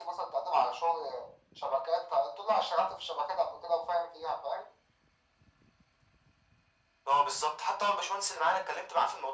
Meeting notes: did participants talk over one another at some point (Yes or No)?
No